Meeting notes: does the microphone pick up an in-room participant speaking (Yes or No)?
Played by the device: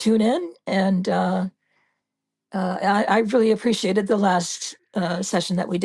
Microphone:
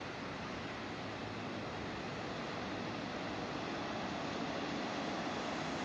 No